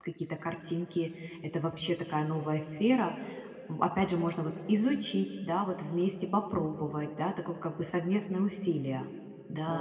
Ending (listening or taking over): taking over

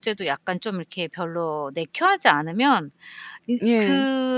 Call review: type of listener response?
listening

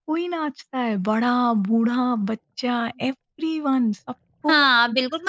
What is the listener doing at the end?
taking over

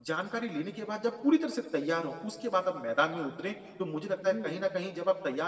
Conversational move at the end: listening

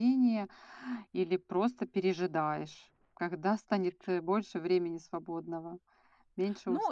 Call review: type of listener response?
taking over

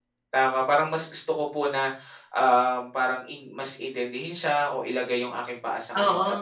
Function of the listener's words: listening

